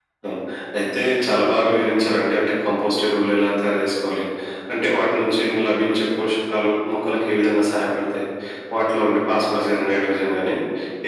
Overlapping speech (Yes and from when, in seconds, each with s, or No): No